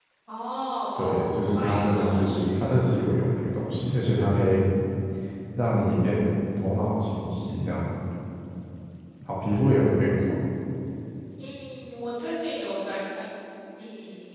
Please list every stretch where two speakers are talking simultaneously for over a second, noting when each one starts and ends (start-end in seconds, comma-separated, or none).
1.0-2.8